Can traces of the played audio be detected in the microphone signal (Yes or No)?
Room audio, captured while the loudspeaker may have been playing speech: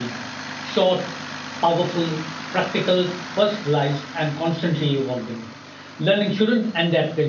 No